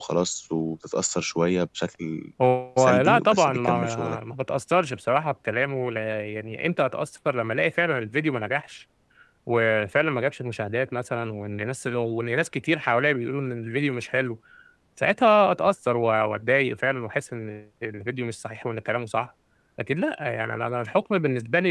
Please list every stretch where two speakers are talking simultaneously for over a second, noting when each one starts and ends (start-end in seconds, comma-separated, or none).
2.8-4.2